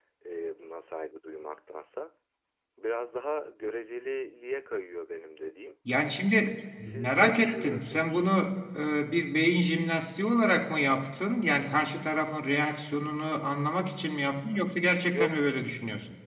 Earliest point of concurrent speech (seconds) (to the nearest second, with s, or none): 7 s